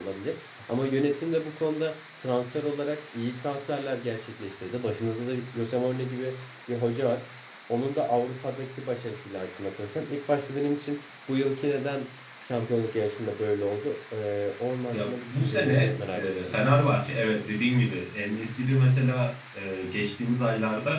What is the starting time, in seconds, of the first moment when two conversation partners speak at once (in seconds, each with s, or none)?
14.9 s